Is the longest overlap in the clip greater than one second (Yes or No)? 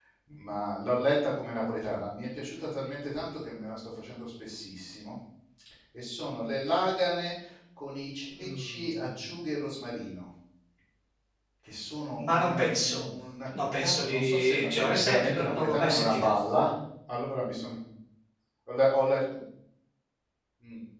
Yes